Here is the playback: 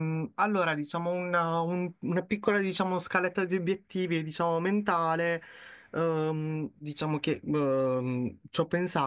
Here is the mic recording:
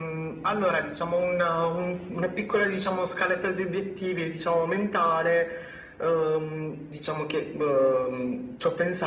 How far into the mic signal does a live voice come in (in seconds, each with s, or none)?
none